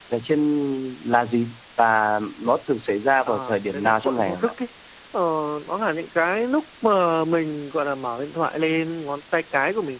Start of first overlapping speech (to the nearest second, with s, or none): 3 s